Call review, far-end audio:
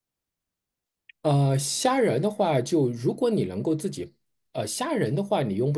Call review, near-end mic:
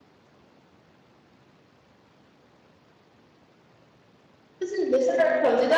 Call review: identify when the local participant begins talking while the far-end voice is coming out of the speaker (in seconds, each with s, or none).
4.6 s